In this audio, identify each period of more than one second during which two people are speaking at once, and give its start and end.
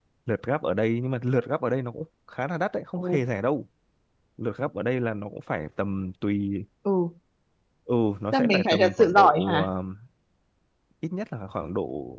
8.3-9.7

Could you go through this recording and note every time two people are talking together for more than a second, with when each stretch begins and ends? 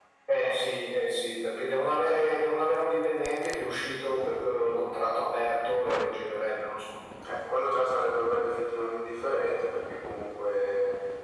none

